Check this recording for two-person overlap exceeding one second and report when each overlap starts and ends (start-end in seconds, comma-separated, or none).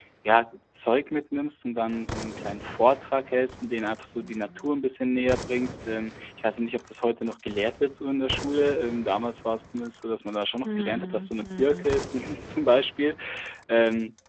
10.6-11.9